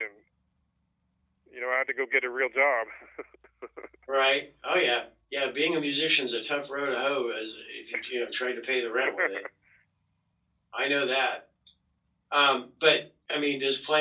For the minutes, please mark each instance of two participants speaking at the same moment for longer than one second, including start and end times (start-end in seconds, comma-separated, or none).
none